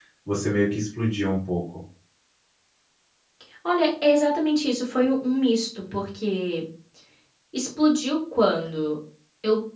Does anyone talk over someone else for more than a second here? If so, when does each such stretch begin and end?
none

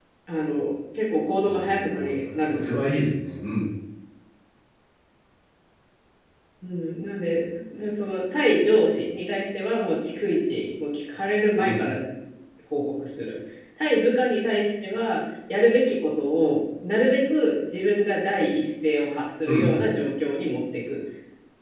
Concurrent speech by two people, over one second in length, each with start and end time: 1.4-3.0

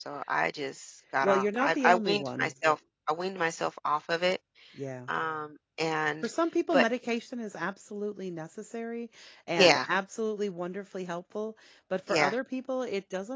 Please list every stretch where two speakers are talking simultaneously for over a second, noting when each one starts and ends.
1.2-2.5

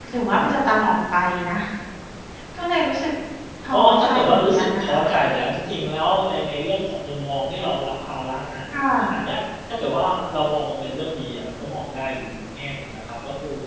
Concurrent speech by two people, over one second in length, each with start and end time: 3.7-5.1

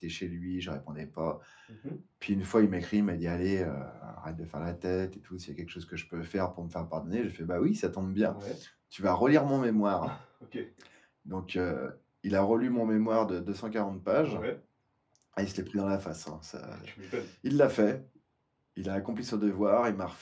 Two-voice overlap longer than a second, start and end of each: none

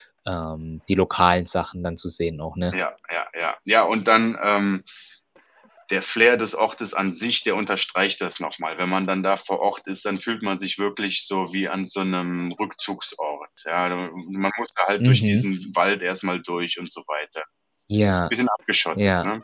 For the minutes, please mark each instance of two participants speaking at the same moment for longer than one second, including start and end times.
none

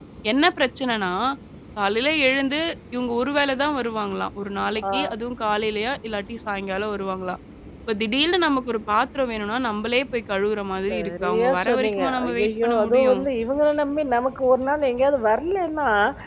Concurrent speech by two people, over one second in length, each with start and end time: 10.9-13.2

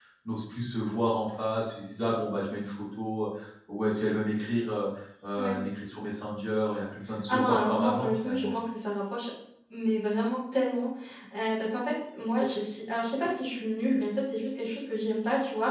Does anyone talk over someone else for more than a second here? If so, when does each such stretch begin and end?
7.3-8.5

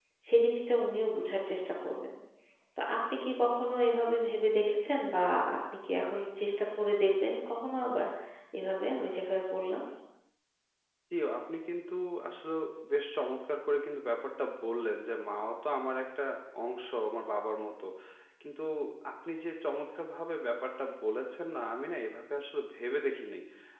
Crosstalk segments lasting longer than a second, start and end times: none

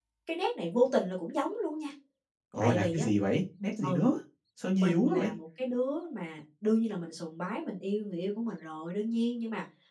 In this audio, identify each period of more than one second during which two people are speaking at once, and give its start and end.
none

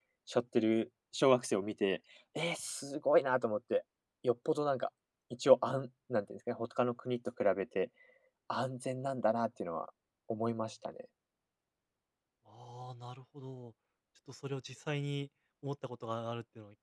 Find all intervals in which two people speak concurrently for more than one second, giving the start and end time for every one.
none

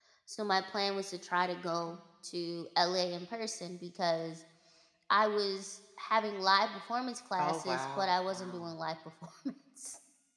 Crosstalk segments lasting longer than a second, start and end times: 7.4-8.7

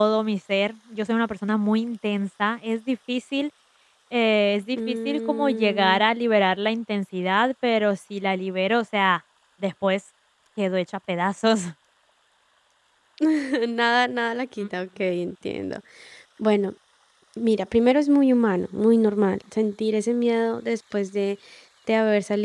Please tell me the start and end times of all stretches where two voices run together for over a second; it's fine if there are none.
4.8-6.0

